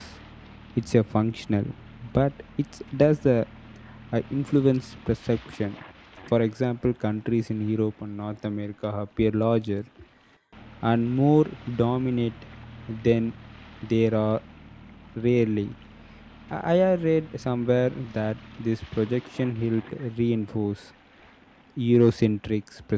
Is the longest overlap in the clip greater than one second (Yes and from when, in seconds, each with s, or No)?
No